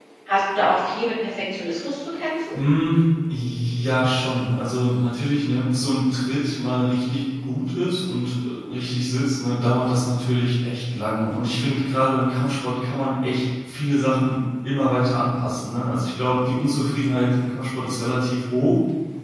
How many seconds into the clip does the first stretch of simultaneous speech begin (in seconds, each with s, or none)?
none